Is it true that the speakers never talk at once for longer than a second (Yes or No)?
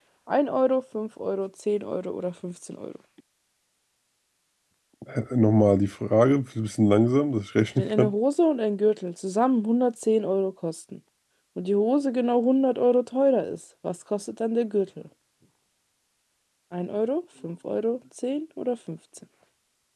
Yes